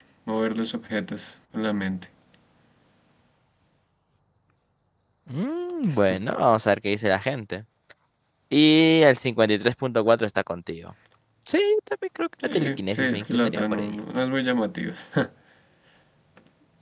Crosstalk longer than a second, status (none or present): present